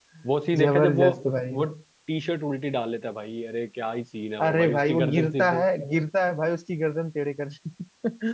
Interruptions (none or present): present